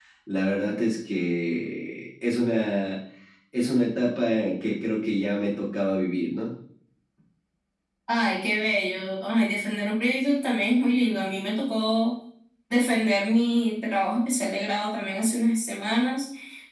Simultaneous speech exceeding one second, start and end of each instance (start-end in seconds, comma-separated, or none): none